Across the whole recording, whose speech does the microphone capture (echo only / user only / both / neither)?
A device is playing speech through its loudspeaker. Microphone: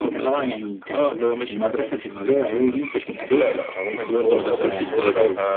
both